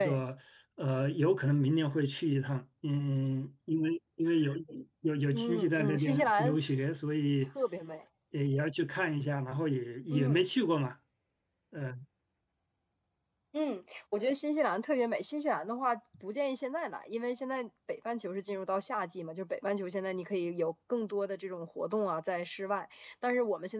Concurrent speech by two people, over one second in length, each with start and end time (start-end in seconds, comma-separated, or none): 5.3-6.6